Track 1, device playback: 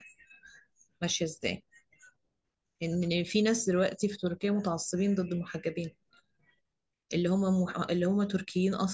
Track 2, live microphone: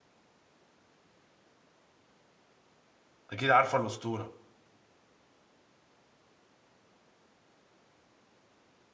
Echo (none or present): none